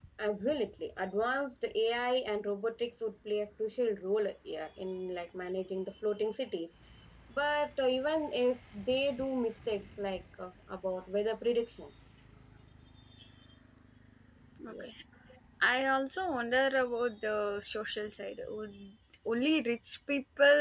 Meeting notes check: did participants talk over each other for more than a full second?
No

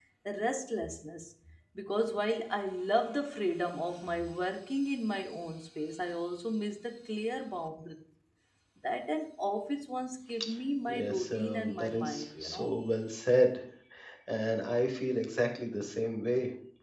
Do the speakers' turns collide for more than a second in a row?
Yes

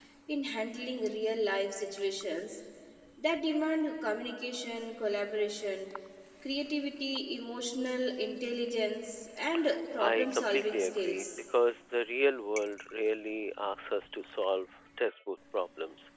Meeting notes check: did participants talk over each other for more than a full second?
Yes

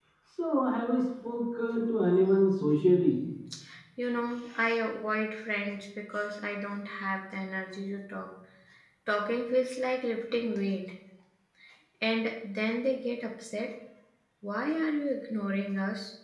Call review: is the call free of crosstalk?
Yes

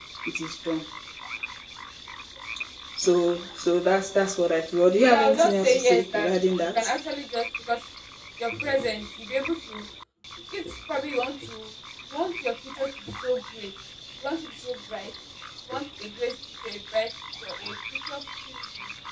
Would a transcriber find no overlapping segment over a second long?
No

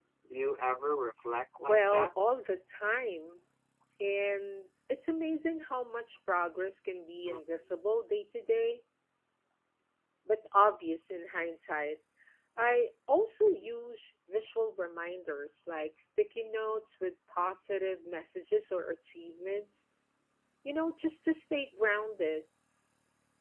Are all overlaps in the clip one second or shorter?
Yes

